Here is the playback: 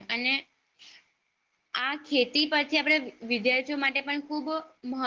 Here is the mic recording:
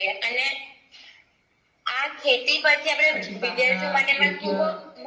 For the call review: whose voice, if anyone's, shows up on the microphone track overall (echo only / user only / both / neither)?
both